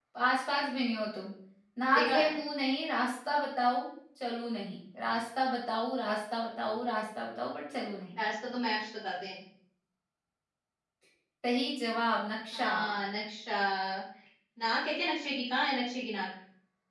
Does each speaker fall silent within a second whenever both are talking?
Yes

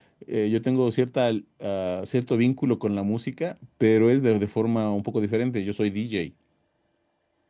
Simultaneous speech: No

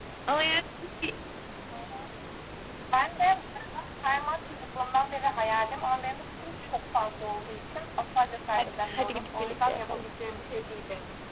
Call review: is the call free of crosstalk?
No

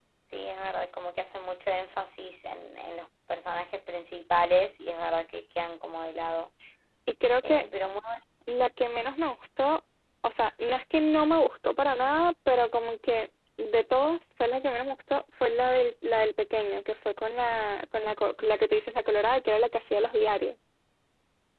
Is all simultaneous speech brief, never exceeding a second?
Yes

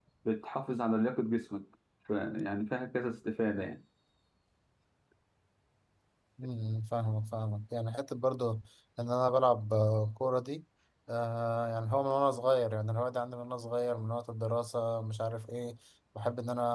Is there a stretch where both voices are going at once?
No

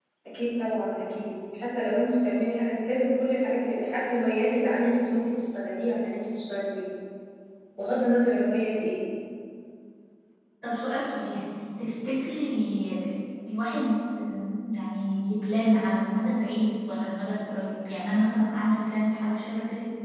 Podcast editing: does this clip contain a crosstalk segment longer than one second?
No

